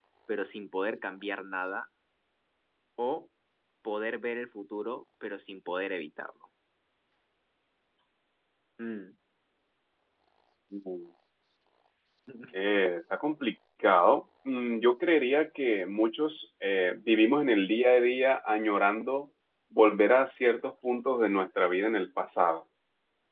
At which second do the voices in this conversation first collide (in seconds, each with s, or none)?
none